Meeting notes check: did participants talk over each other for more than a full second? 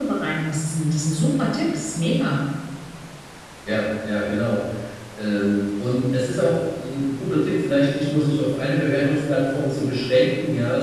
No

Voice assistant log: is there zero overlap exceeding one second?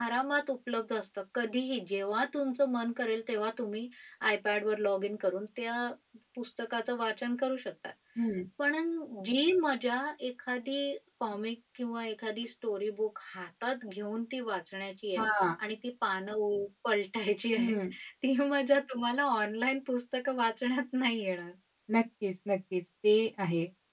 Yes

